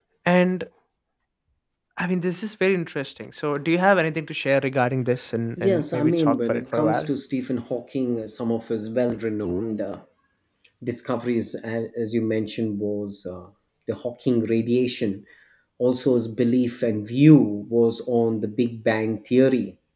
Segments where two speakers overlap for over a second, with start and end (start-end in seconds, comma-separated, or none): 5.6-7.1